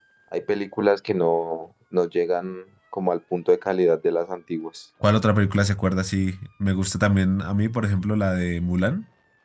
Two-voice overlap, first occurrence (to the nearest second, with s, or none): none